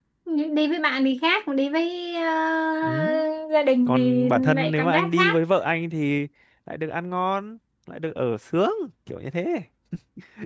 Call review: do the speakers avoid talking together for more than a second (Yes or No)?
No